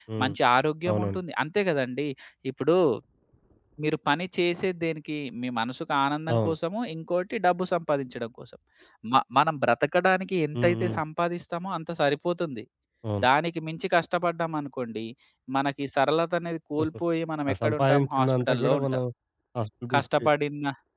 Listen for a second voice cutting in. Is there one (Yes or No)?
Yes